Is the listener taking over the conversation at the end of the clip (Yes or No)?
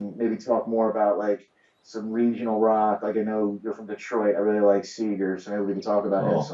Yes